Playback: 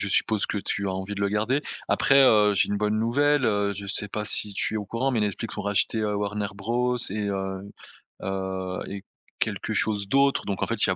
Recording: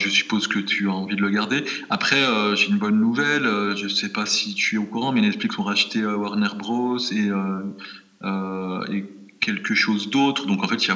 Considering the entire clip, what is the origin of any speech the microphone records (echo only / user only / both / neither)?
echo only